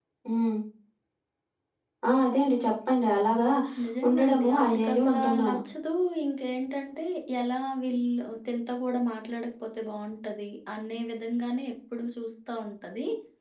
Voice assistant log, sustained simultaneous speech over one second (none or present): present